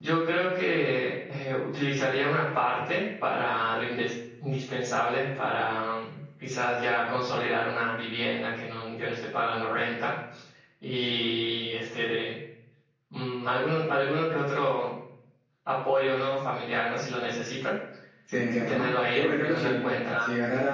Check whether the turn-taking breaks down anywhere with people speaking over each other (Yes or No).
Yes